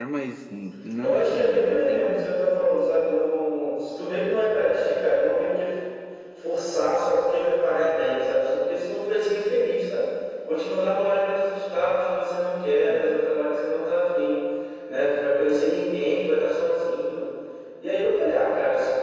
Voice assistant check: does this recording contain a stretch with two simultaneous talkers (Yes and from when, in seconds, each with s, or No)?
Yes, from 1.0 s